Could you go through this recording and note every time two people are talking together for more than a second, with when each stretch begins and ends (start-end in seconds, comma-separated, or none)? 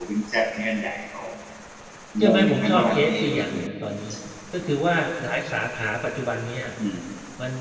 2.2-3.5